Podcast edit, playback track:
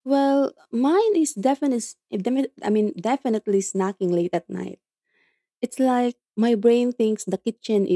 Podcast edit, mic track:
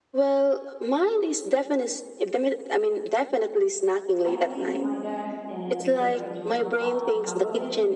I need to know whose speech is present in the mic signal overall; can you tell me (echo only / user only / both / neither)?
both